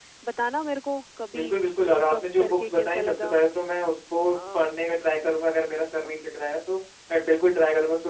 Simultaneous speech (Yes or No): Yes